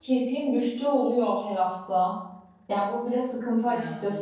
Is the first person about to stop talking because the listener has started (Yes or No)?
No